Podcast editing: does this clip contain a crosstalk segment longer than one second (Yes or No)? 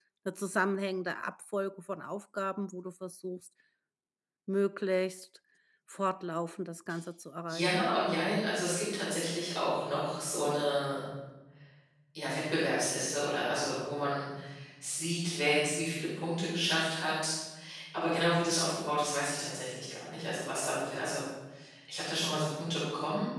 No